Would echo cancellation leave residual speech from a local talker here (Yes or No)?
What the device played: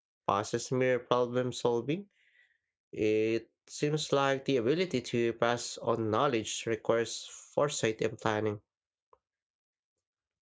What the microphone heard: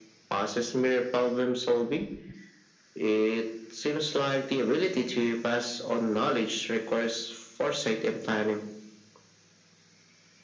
No